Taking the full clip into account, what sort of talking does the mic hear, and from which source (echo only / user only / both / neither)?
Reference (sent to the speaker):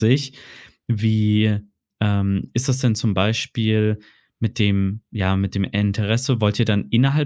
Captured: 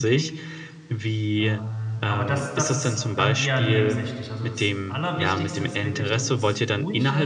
both